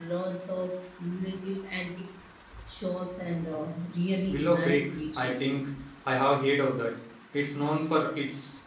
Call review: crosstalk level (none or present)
present